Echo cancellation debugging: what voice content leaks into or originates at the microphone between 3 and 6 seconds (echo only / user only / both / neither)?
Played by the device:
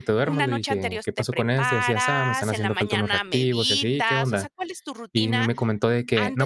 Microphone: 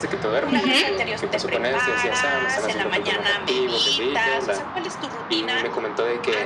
echo only